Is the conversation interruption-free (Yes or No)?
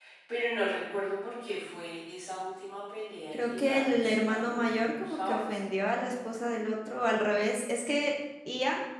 No